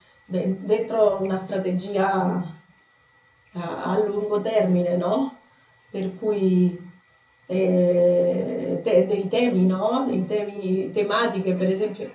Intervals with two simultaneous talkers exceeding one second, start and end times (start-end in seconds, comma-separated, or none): none